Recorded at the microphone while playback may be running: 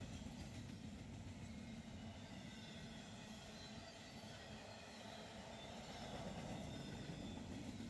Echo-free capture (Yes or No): Yes